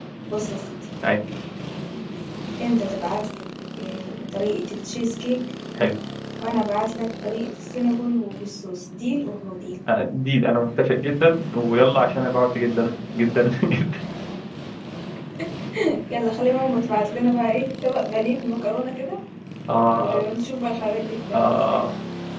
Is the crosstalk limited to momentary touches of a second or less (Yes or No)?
Yes